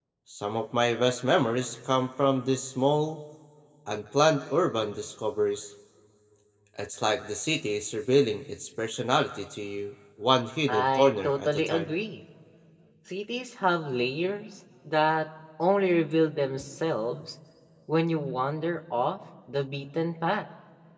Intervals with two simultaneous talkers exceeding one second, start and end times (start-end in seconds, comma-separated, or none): 10.7-11.9